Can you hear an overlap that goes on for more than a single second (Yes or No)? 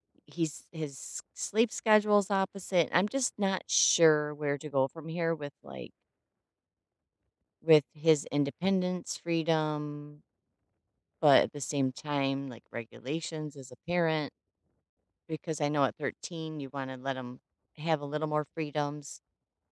No